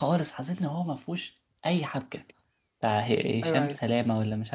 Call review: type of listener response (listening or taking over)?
listening